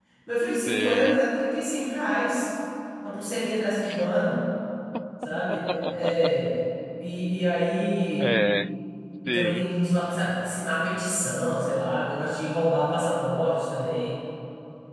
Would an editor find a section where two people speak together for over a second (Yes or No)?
No